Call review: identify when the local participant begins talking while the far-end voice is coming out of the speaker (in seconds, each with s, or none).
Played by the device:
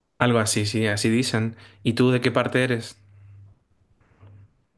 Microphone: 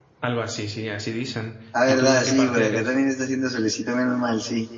1.7 s